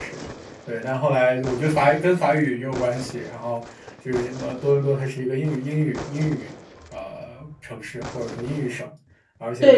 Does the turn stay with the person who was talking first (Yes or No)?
No